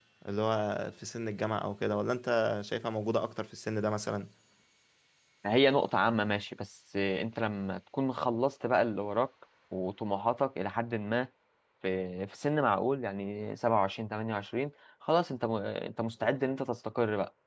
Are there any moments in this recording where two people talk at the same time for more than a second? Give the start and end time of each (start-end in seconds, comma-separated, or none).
none